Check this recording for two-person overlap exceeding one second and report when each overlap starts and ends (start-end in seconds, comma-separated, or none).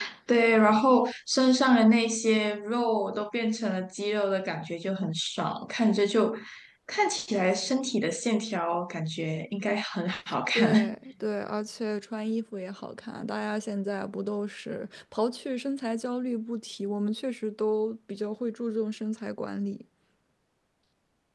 none